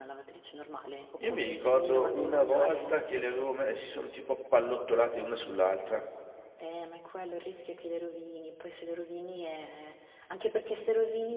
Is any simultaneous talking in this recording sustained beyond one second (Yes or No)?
Yes